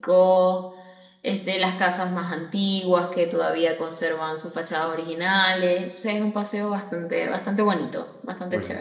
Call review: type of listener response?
taking over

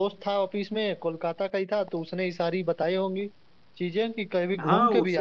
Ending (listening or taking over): taking over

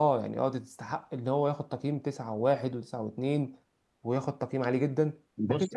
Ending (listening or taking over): taking over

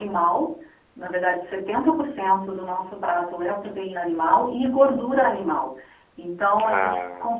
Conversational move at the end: listening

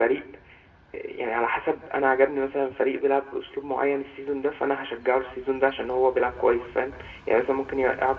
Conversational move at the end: listening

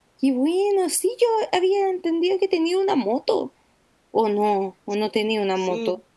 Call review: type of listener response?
taking over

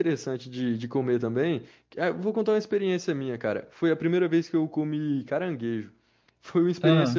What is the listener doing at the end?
listening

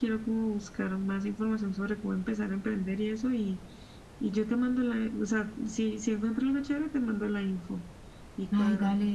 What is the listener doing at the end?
taking over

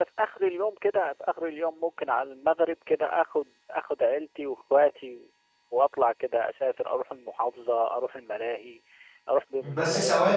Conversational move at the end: taking over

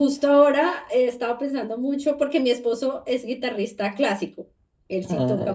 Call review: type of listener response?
listening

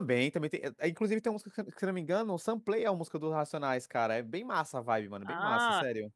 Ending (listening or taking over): taking over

